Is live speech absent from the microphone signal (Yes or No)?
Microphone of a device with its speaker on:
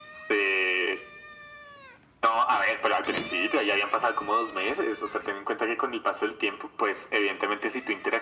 Yes